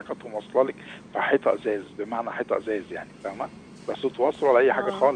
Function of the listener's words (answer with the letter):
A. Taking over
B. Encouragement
B